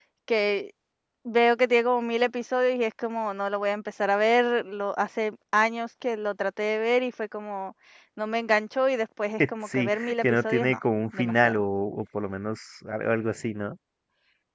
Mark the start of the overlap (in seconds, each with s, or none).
9.4 s